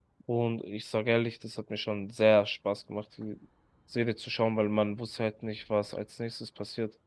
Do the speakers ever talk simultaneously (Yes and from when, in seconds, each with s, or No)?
No